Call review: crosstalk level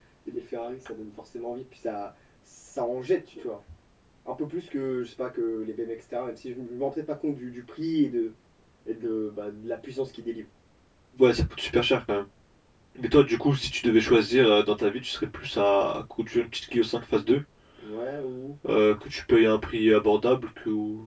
none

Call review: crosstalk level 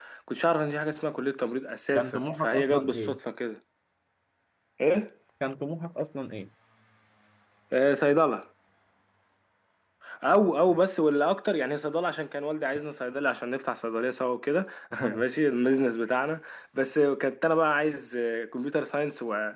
present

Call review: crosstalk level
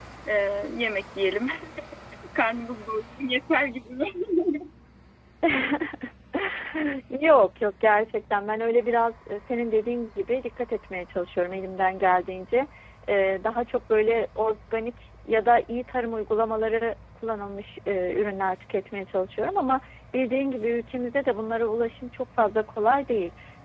none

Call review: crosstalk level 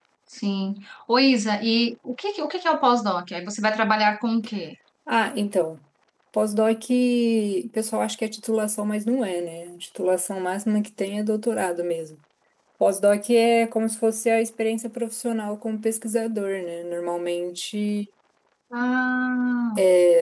none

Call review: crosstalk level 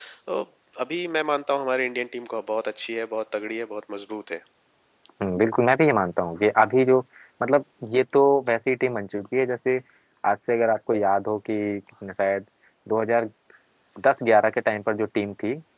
none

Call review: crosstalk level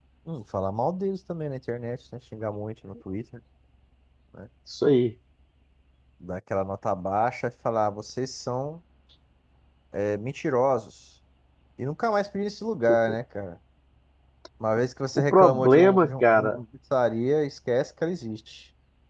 present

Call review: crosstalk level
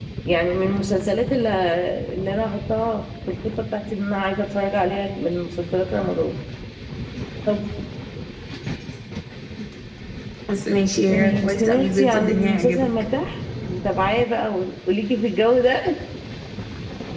present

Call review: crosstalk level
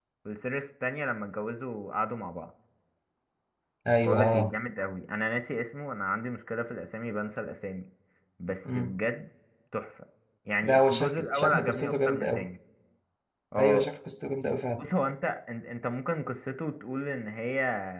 present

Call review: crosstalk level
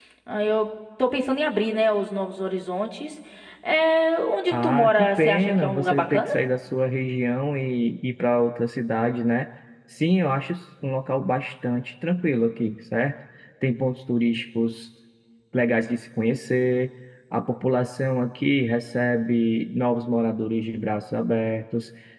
present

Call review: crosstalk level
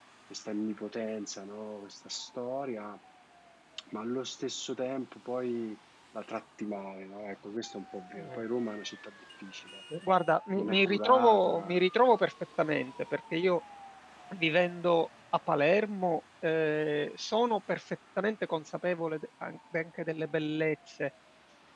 present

